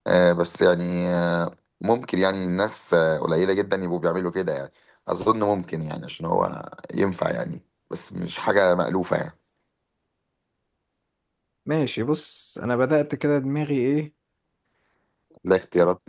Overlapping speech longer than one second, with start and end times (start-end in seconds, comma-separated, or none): none